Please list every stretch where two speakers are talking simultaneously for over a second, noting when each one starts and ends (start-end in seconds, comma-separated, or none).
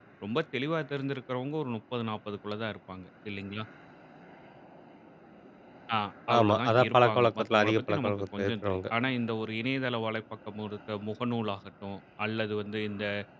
6.4-8.8